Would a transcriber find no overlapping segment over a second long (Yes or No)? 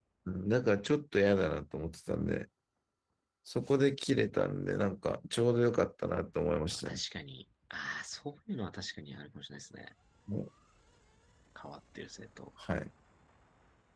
Yes